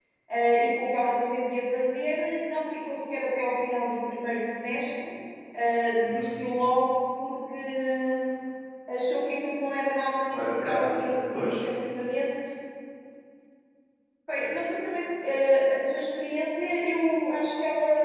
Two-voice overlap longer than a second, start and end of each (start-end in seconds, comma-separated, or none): 10.3-11.7